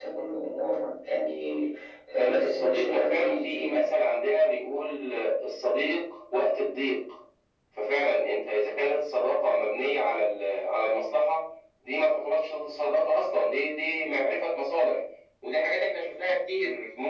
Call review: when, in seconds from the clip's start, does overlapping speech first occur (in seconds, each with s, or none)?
2.1 s